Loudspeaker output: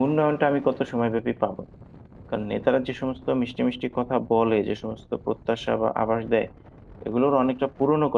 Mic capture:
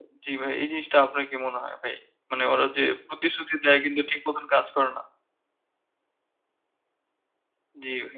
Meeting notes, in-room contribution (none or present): present